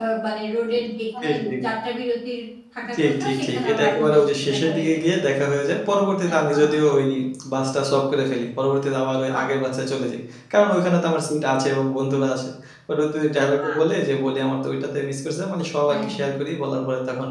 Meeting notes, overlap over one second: present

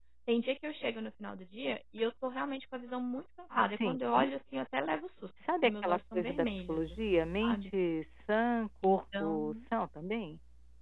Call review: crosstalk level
present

